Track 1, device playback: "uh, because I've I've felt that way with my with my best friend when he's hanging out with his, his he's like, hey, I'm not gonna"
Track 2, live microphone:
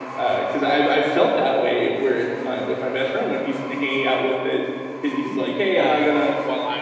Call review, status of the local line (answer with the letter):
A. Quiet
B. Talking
B